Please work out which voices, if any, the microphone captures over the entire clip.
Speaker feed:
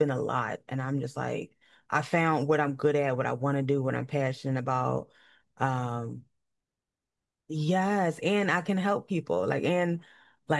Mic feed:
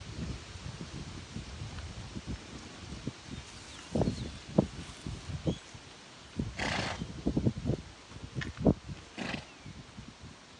neither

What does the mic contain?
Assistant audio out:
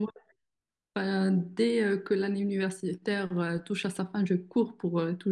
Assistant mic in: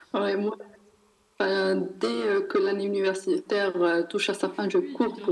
both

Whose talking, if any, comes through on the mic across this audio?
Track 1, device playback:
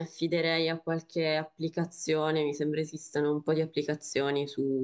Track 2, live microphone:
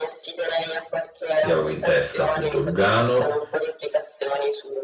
both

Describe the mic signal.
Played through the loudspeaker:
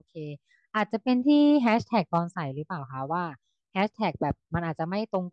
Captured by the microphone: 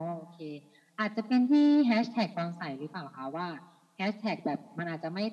echo only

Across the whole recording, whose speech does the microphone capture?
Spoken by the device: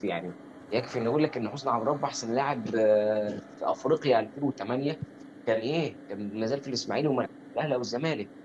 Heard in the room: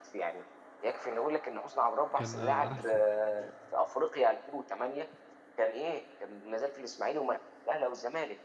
both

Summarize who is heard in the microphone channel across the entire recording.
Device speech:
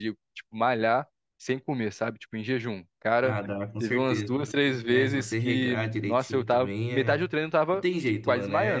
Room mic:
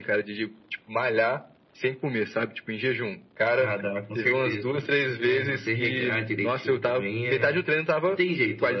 echo only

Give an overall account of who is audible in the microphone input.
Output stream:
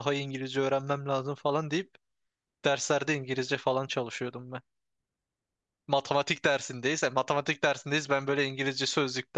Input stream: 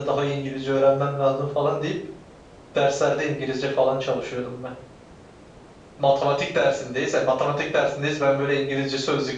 echo only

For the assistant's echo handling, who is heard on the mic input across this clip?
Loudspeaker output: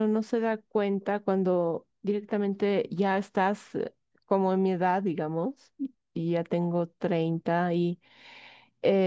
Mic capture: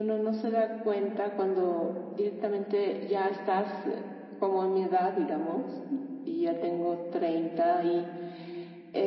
echo only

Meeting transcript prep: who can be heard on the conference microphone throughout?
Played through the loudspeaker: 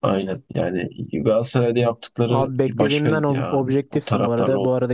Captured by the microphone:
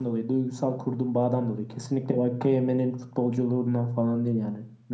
user only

